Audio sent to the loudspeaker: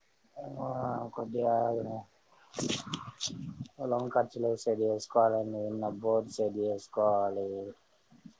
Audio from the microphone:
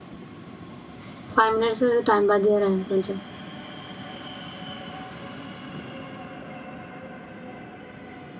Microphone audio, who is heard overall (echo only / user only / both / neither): user only